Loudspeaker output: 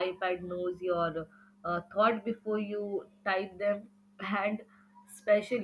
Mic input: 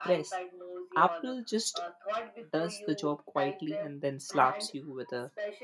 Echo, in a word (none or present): present